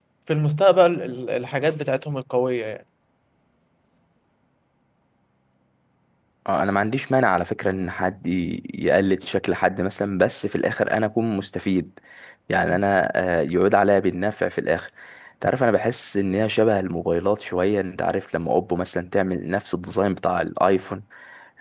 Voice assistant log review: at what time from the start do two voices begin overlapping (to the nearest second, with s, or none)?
none